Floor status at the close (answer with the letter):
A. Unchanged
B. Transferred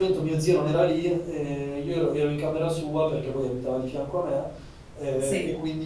A